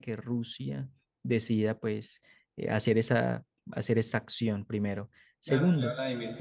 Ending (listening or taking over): taking over